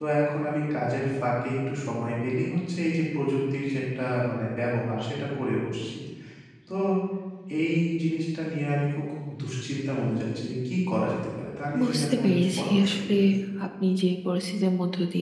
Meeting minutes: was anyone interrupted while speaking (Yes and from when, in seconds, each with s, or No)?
Yes, from 11.7 s